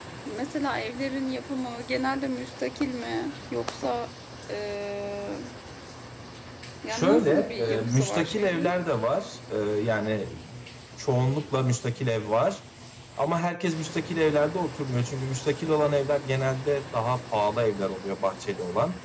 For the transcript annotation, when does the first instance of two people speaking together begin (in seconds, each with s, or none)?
6.9 s